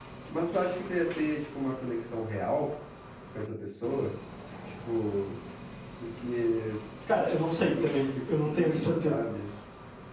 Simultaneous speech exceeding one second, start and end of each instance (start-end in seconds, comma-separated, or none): 7.7-9.2